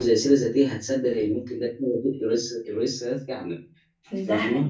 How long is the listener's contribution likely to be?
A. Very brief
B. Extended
B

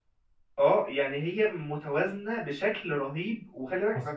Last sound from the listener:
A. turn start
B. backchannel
A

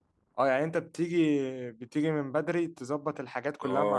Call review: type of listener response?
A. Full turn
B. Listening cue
A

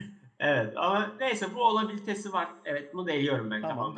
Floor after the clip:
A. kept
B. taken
B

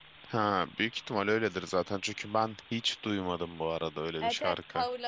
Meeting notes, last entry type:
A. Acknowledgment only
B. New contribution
B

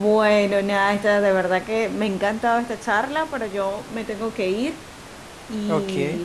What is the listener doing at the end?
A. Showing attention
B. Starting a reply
A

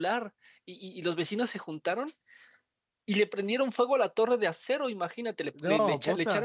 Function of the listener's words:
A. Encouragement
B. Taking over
A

